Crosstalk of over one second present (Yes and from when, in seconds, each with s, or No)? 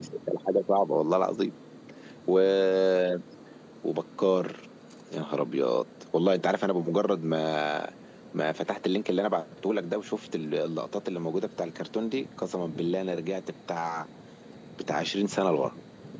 No